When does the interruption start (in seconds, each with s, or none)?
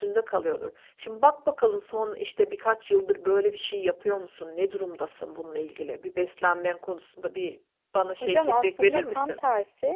8.2 s